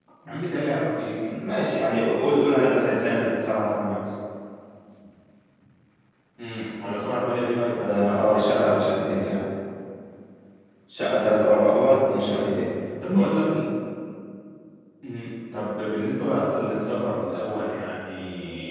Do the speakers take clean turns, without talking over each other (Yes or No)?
No